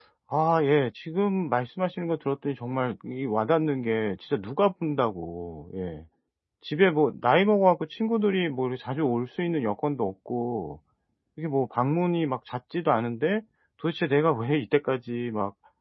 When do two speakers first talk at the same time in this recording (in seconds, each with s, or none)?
none